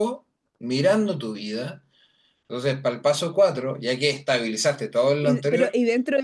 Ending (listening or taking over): taking over